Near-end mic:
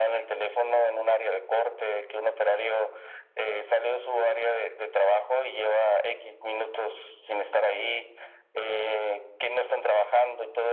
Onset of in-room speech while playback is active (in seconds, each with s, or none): none